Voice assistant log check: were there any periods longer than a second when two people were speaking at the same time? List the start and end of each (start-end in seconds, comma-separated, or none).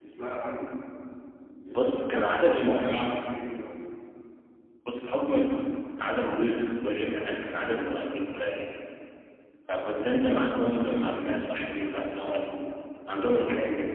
1.8-3.2